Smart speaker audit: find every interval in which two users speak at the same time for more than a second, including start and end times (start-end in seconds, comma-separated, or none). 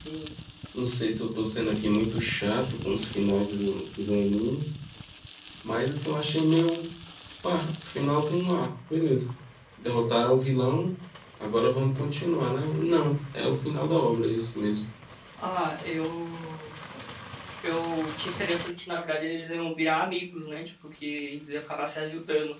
none